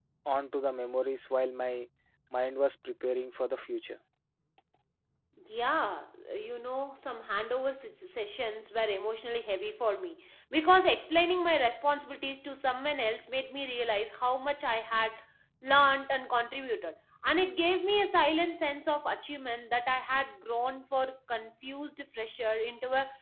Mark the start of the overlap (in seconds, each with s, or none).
none